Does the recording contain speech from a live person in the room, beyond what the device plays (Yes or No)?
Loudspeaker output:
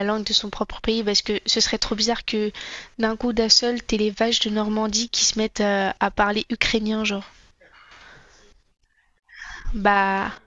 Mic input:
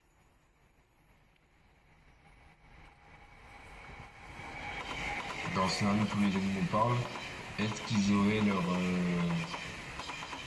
Yes